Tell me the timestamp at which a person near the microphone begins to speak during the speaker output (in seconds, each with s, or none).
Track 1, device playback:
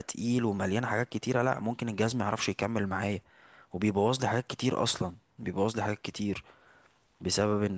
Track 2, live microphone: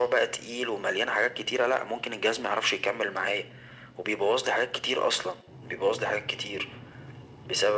none